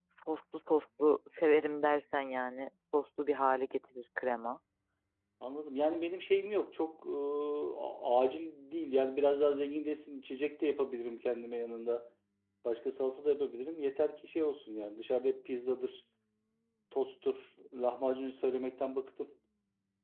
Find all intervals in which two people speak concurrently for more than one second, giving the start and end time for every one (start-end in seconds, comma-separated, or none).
none